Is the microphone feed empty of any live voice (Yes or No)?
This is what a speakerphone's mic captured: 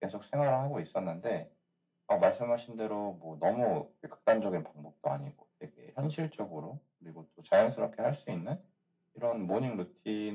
Yes